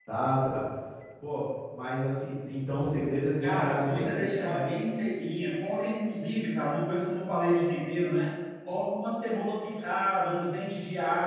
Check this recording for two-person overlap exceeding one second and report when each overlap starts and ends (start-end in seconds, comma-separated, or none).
3.4-4.7